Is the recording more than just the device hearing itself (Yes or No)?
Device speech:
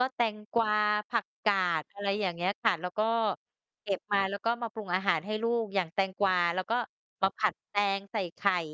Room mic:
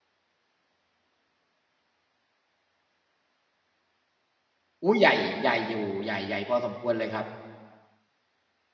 Yes